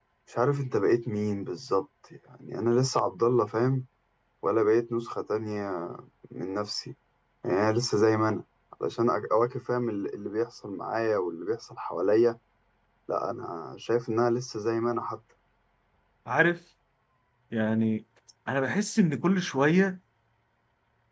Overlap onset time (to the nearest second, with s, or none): none